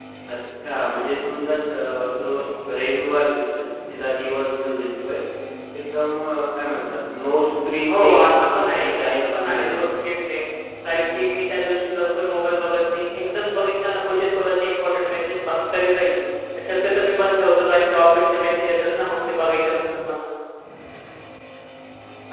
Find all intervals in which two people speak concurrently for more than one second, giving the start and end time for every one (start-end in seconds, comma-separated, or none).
7.9-9.8